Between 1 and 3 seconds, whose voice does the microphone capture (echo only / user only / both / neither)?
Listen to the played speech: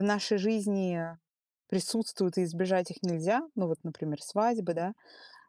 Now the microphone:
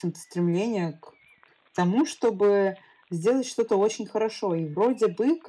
user only